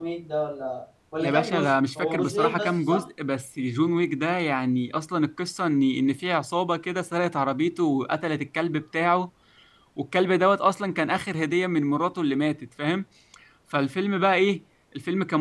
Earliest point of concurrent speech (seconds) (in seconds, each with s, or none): 1.2 s